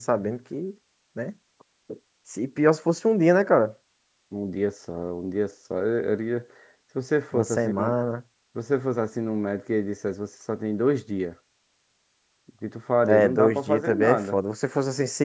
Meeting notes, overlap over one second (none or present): present